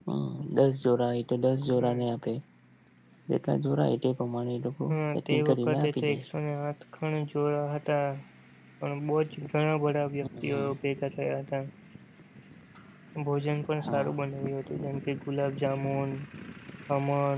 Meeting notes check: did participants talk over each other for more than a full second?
Yes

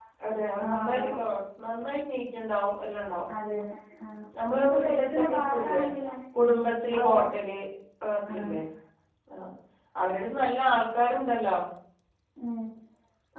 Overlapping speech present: Yes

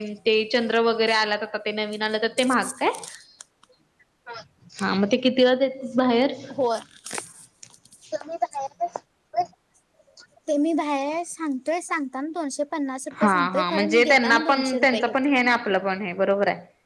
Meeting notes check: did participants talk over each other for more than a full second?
Yes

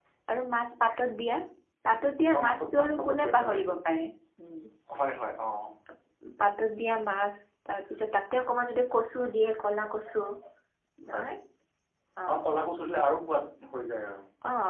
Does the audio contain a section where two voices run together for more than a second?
Yes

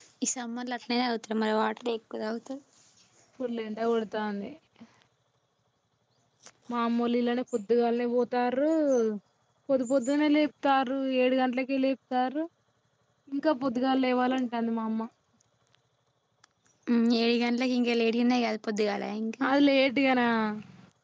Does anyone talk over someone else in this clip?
No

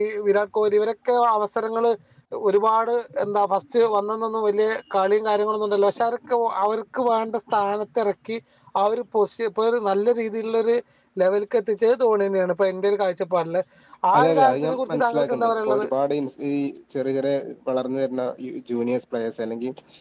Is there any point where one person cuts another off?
Yes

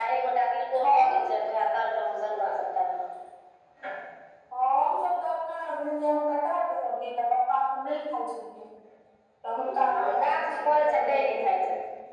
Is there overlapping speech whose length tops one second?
Yes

